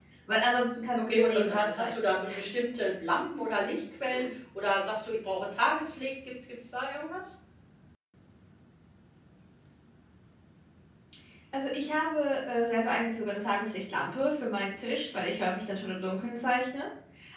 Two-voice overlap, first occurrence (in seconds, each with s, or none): 1.0 s